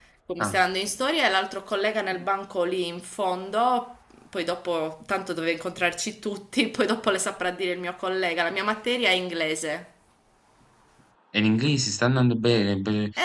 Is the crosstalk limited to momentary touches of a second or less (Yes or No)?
Yes